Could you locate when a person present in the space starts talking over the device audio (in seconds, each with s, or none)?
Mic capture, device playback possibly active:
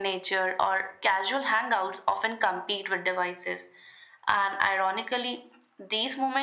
none